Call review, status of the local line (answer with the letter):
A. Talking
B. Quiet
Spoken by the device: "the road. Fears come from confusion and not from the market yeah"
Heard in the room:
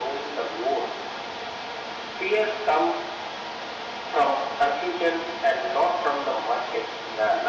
B